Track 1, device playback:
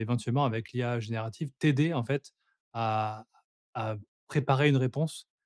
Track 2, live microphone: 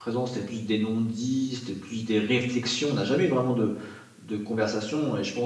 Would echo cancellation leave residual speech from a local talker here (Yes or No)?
Yes